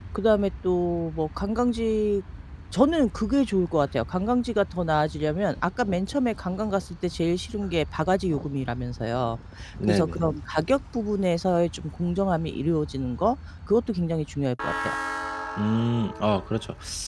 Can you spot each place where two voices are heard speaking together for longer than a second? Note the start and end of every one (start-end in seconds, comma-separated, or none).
none